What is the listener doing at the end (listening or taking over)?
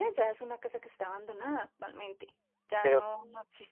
listening